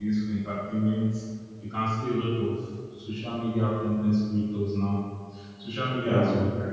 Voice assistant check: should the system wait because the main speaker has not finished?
Yes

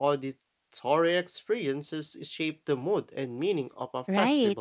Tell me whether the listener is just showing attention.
No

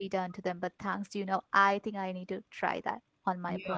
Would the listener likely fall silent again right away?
No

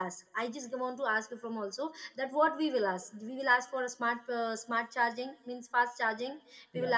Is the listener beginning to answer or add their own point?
No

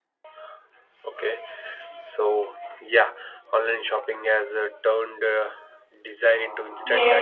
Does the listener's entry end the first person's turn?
Yes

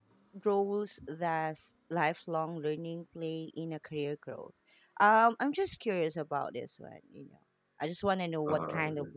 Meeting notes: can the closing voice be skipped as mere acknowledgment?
Yes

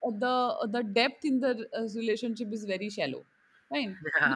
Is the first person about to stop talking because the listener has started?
Yes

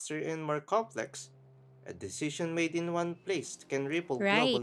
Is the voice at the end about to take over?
Yes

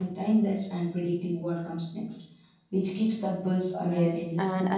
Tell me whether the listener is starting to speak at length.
Yes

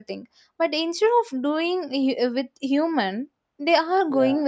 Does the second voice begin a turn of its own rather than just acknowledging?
No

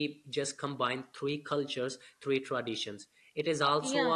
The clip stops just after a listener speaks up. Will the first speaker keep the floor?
No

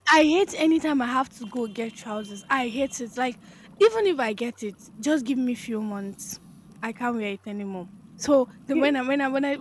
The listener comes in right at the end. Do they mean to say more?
No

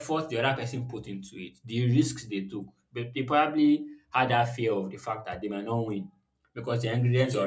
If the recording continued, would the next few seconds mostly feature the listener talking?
No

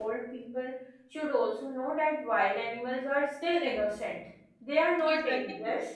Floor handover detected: Yes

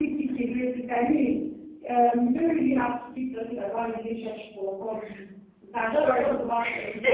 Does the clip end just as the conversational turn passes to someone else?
No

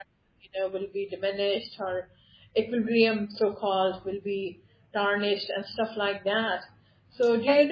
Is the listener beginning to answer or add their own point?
Yes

